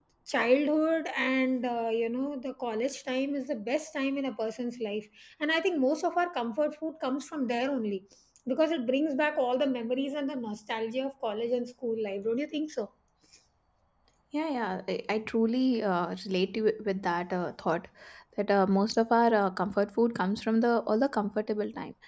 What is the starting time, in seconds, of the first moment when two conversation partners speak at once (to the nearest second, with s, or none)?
none